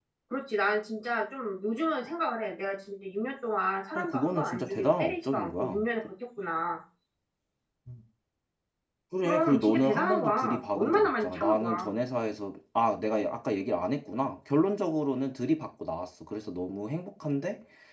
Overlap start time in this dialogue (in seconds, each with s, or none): 4.0 s